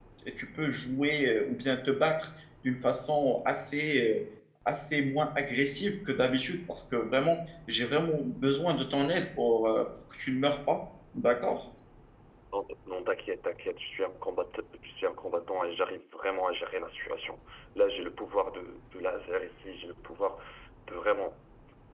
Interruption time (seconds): none

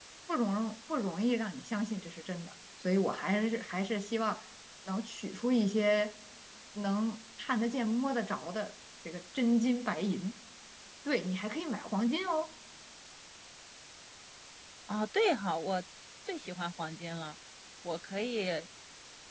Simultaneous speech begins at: none

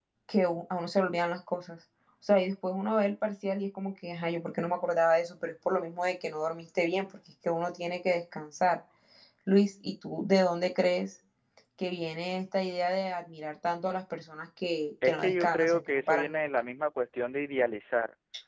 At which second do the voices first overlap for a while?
15 s

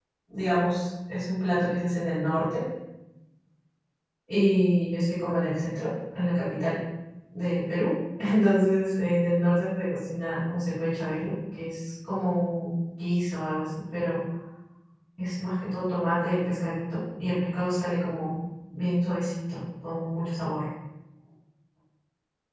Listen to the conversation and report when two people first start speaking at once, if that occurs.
none

